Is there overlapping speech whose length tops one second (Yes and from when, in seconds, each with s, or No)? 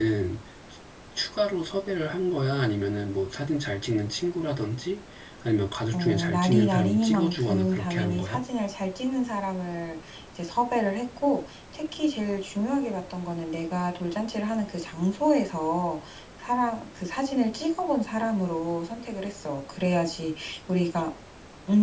Yes, from 5.9 s